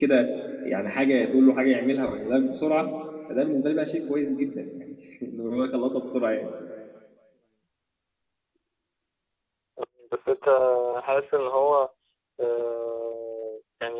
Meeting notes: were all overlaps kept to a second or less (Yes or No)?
Yes